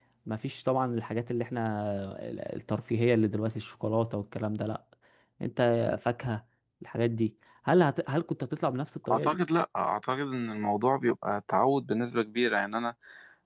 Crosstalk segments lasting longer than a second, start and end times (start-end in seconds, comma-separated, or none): none